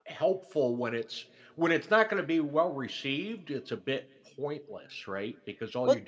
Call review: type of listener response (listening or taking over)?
taking over